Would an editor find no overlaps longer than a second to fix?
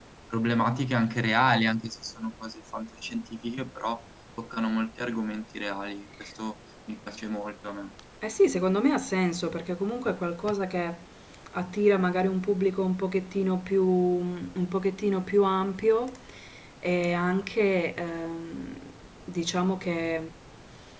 Yes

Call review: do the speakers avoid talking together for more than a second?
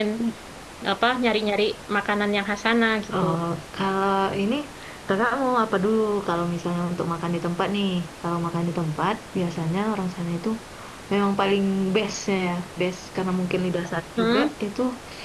Yes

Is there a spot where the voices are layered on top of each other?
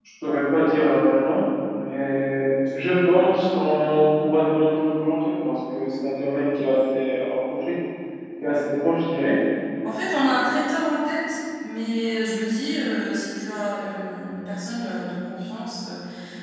No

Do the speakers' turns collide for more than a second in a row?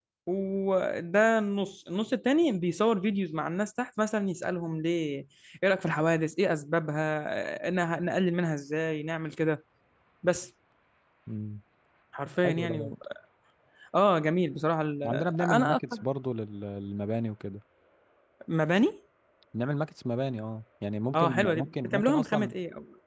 Yes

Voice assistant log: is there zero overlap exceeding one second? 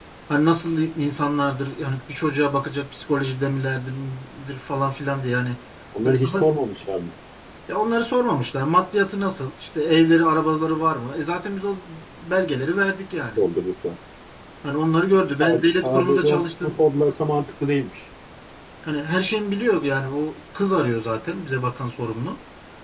No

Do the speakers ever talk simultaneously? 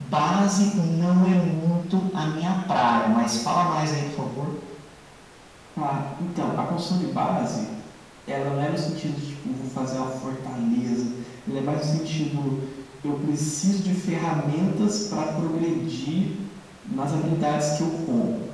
No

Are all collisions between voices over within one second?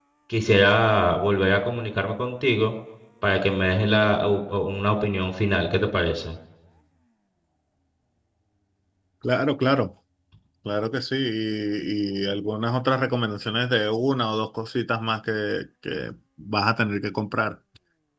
Yes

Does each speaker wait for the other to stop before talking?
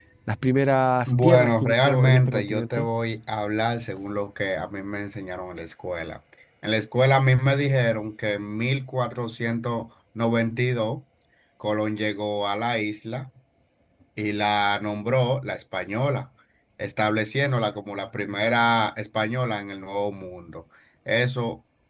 No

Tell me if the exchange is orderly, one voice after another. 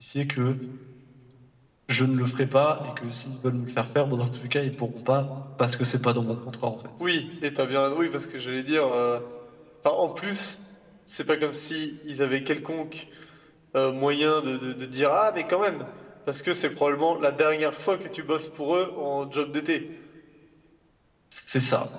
Yes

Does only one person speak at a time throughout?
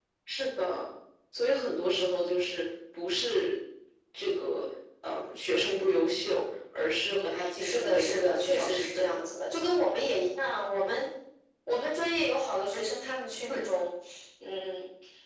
No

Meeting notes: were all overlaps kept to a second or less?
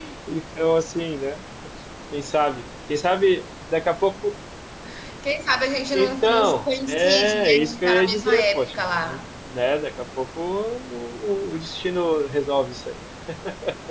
No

